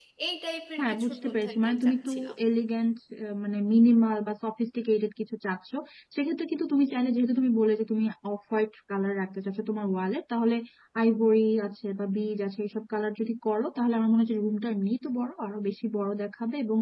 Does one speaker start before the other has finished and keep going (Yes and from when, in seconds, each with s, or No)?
Yes, from 0.8 s